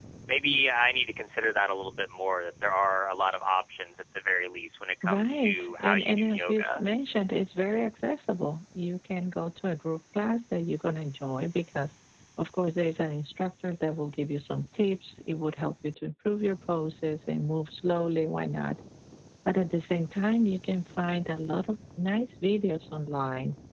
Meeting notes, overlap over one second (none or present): present